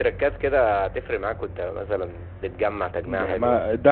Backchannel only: No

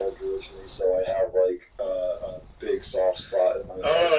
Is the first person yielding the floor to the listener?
Yes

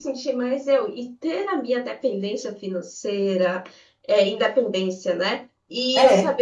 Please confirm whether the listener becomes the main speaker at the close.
No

